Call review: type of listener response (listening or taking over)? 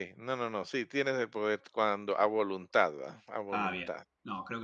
taking over